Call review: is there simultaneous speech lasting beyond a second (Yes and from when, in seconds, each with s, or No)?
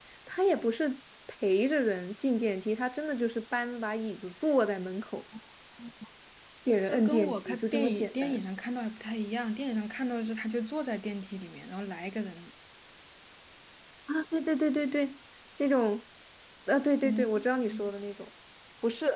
Yes, from 6.9 s